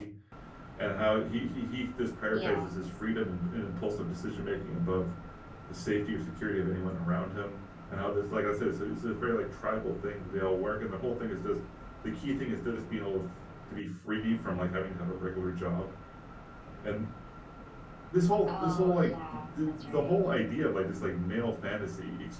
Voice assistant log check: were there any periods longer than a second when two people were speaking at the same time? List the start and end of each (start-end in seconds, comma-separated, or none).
18.4-20.2